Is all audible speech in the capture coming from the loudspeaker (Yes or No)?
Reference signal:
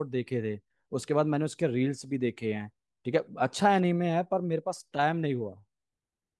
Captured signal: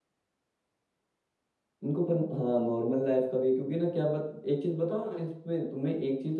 No